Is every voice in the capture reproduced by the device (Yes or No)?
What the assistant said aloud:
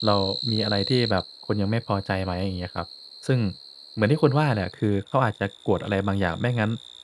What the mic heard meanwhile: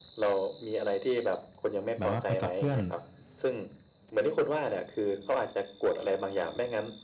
No